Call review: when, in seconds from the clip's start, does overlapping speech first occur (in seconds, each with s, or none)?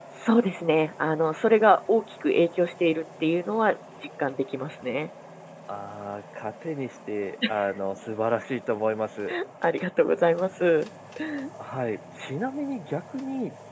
none